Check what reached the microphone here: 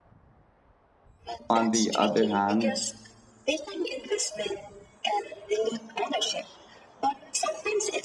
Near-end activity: present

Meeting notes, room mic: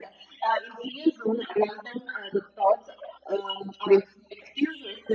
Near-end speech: none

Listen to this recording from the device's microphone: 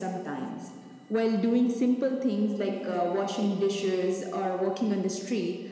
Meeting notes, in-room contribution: none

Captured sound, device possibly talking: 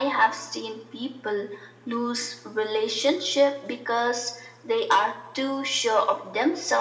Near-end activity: none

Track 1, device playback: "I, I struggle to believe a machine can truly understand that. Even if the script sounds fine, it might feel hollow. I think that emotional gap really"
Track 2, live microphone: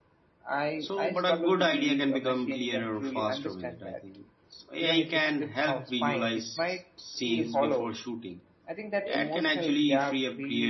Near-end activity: present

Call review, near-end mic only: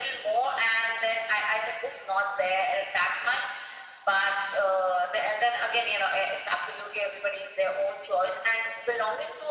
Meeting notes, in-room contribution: none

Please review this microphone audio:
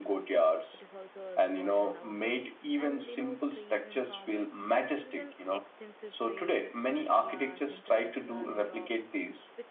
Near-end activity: present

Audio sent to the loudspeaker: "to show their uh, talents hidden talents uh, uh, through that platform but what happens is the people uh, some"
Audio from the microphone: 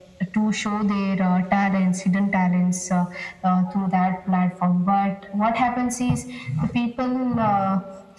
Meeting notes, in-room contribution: none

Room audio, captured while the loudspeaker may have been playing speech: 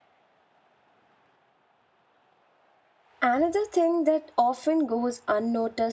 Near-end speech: present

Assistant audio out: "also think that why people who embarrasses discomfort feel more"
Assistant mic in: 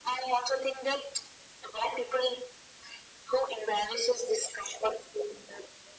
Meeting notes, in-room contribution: none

